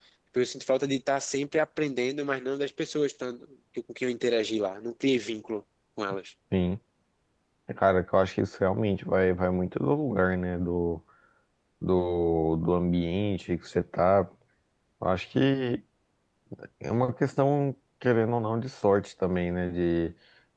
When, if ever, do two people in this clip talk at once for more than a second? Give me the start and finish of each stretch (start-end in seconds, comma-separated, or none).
none